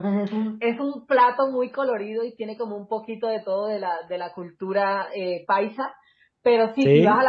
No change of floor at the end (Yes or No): Yes